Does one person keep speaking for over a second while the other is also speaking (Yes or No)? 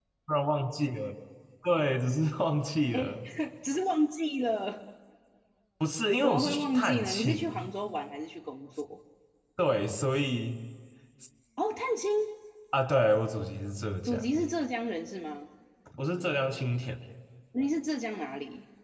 Yes